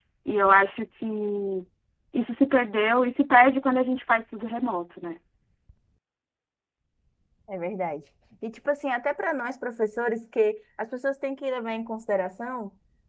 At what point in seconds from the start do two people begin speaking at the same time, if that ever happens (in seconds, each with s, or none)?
none